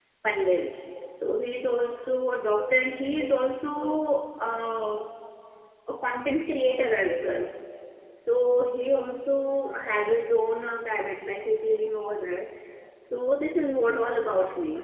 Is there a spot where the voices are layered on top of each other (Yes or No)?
No